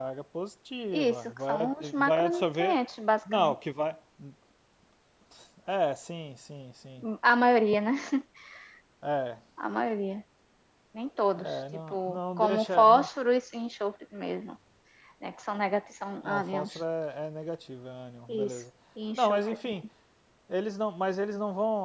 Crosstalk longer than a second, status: present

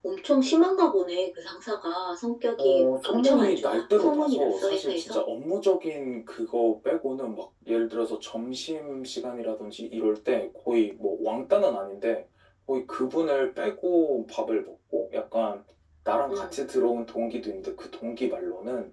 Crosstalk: present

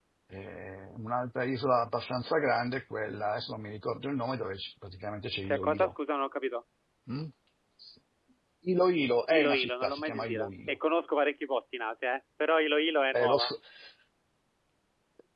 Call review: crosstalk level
present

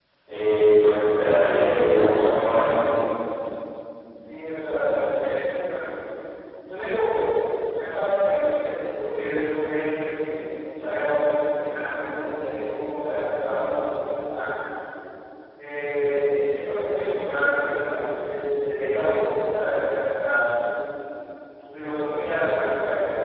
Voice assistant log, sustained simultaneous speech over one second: none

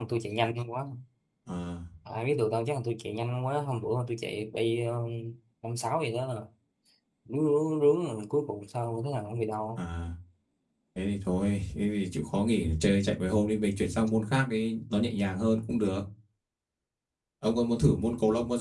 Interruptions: none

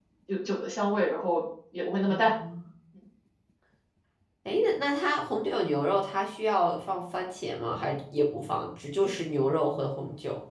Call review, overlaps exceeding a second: none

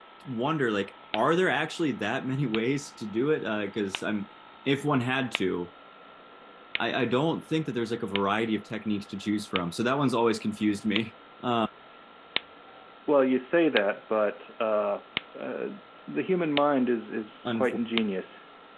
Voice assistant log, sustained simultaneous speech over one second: none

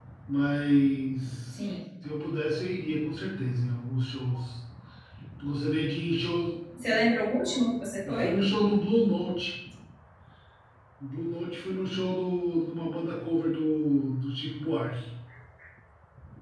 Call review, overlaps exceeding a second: none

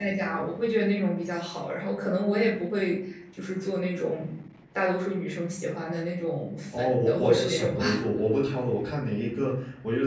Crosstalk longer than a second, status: present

